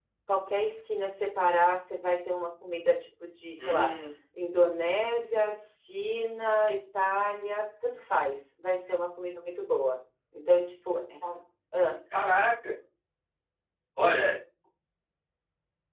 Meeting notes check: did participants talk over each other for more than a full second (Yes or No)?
No